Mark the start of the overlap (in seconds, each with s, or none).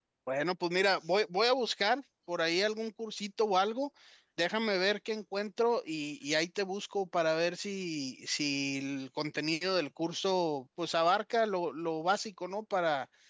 none